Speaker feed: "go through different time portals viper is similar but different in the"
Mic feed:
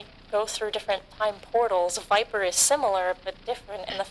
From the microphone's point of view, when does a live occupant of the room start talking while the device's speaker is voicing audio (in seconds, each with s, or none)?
none